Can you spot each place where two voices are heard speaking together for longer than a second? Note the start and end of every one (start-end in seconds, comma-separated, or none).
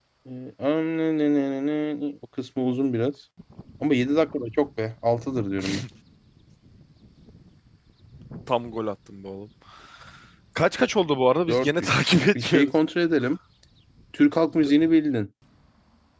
11.5-12.7